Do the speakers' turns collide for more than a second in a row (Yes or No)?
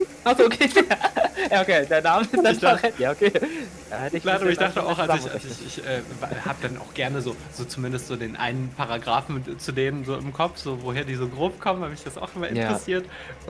Yes